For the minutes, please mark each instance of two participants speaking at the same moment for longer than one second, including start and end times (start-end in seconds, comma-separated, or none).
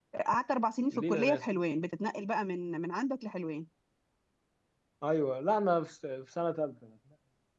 none